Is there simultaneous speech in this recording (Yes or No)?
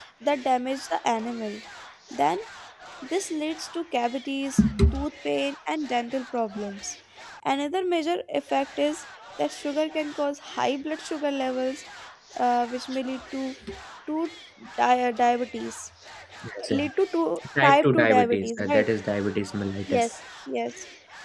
Yes